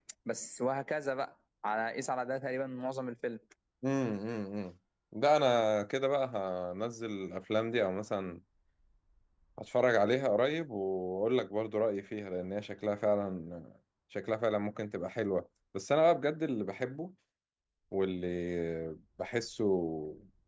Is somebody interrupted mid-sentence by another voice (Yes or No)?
No